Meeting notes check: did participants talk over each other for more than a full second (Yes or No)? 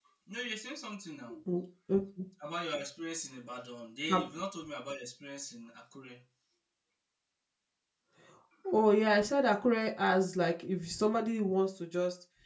No